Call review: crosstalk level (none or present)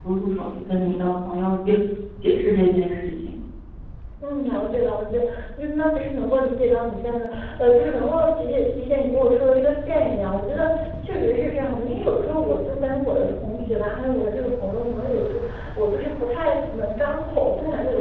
none